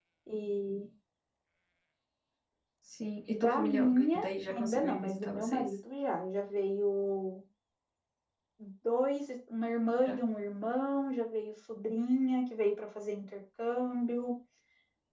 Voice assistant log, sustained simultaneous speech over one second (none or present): present